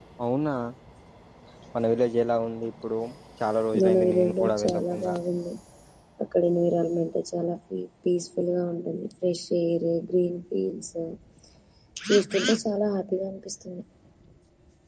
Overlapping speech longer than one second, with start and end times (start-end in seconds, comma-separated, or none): 3.8-5.1